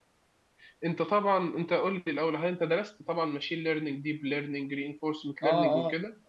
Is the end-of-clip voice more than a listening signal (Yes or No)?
Yes